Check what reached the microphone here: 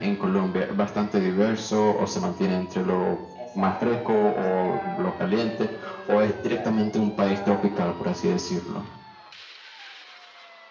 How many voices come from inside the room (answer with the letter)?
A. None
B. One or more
B